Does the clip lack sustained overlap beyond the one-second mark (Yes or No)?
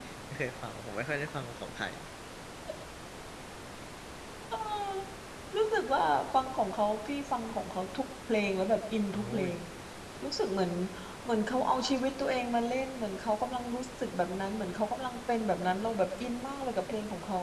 Yes